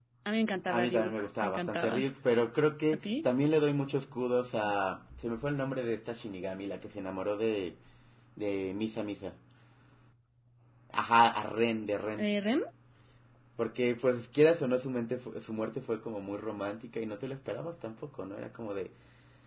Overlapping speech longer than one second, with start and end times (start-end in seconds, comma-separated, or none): 0.7-2.0